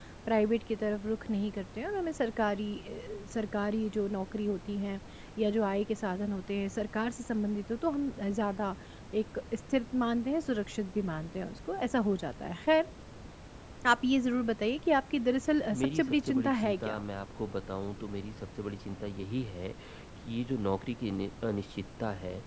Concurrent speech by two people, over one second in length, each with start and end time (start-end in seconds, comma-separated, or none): 15.7-17.0